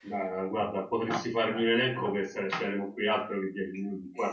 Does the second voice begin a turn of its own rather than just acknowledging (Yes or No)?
No